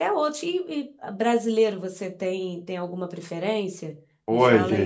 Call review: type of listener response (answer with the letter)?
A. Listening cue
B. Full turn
B